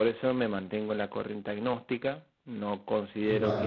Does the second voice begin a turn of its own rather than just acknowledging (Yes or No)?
No